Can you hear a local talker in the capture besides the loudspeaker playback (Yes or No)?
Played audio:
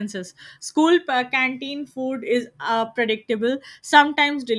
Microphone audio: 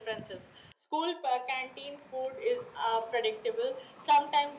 No